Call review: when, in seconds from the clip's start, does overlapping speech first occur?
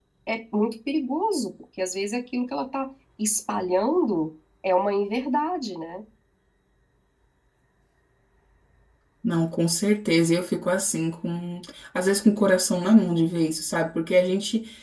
none

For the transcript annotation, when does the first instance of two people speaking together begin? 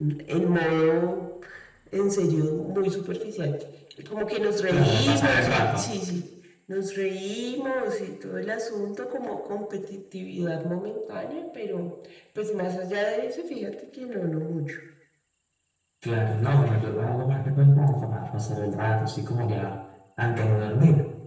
4.7 s

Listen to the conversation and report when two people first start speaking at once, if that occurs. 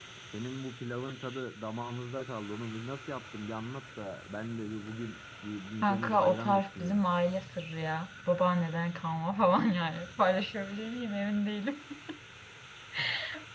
5.8 s

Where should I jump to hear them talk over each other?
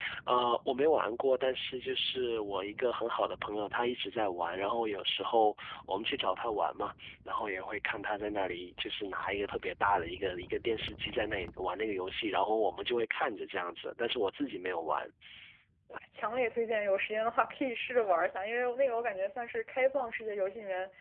none

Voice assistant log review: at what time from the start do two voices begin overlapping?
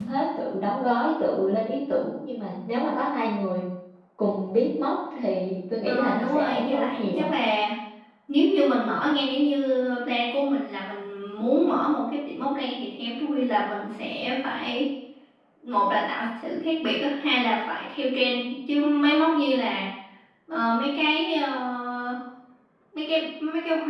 5.8 s

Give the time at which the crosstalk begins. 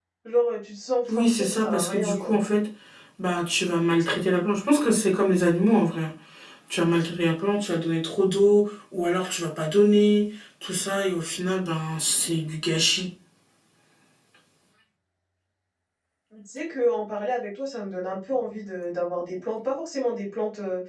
1.1 s

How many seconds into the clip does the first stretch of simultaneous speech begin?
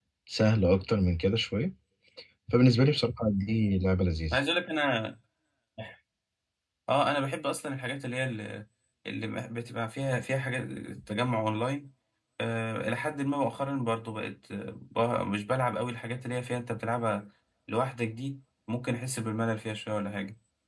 none

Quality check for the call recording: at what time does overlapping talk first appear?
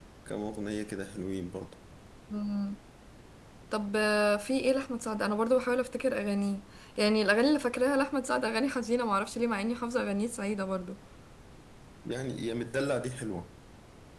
none

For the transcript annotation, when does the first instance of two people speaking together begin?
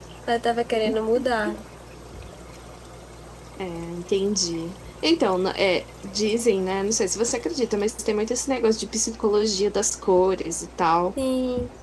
none

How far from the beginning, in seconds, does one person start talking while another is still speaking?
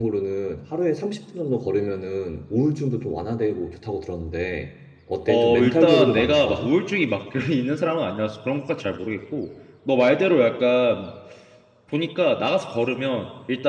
5.3 s

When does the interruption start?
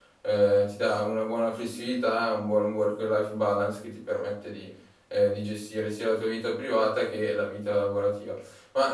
none

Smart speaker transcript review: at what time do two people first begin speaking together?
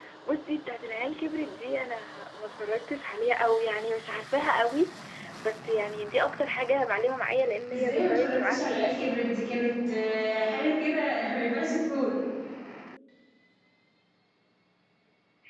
7.7 s

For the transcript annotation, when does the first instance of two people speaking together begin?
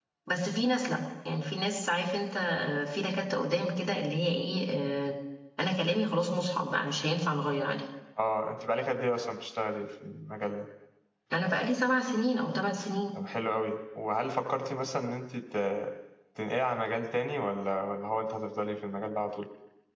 none

